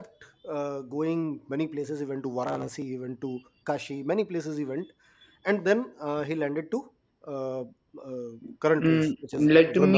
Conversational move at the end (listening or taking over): taking over